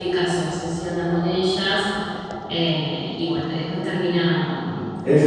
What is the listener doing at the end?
taking over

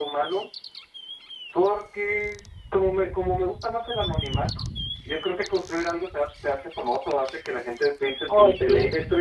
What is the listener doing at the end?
listening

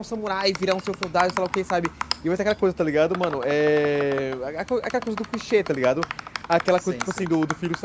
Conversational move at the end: listening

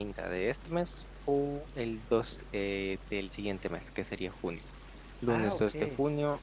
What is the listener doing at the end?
listening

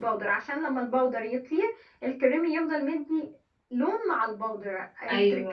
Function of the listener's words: listening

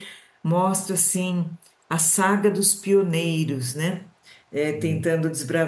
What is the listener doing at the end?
listening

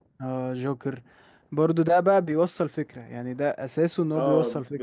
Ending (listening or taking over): taking over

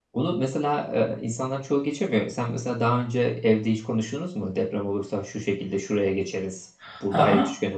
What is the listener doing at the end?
taking over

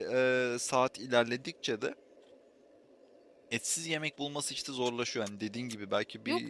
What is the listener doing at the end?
taking over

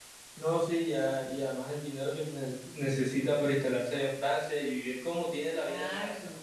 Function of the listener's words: taking over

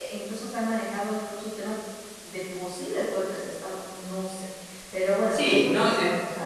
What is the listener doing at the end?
taking over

